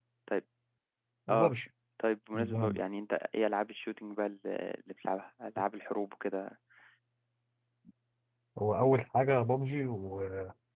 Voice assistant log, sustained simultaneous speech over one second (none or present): none